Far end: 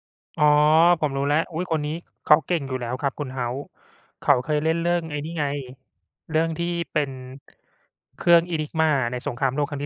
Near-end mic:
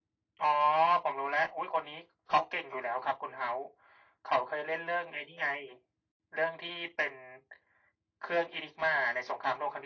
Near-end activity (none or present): none